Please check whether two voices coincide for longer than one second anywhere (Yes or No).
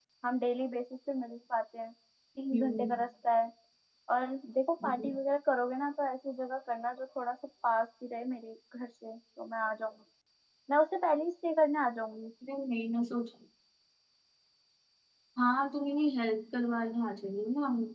No